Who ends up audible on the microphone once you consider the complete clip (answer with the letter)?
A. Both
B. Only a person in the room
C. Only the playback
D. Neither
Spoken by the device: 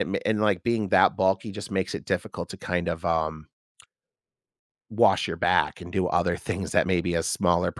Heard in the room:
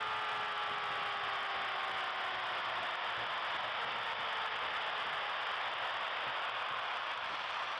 D